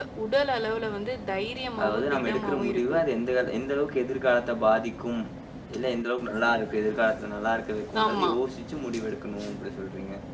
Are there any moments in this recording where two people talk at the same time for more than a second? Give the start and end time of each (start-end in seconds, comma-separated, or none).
1.8-3.0